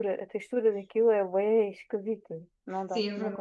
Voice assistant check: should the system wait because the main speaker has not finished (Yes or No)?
No